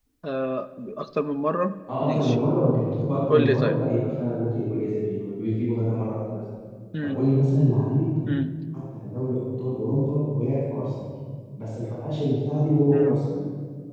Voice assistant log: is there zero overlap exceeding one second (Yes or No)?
Yes